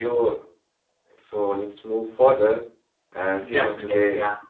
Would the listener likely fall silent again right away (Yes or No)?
No